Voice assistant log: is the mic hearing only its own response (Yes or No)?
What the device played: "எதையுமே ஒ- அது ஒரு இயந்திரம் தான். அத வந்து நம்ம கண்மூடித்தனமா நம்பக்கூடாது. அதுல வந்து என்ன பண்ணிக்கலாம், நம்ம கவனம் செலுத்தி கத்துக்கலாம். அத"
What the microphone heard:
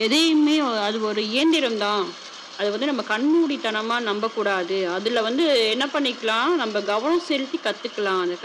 Yes